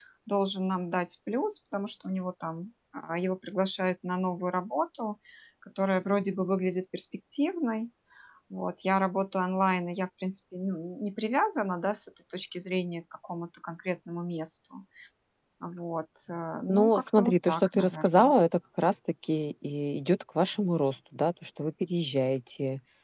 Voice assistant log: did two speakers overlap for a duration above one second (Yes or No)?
Yes